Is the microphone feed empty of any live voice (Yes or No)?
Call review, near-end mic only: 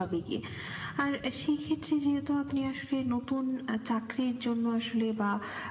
Yes